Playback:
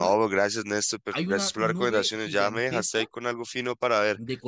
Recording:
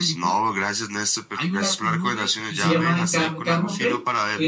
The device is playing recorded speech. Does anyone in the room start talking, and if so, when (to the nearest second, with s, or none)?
2 s